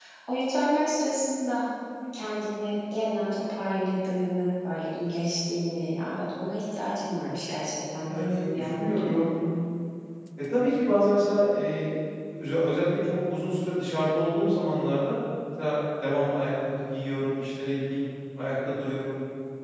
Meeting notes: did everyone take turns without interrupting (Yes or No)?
No